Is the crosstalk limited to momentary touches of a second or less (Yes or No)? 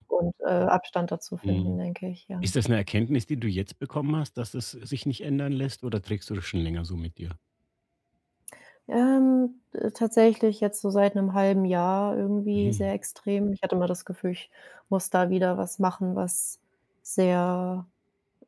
Yes